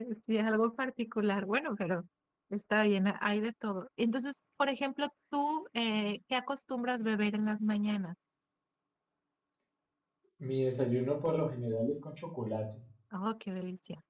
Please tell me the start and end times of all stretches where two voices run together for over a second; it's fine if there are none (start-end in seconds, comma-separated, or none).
none